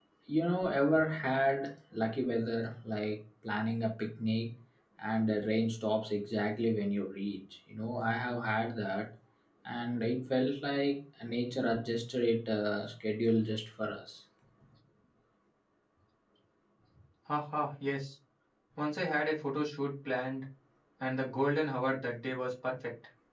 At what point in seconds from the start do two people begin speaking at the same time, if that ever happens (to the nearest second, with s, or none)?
none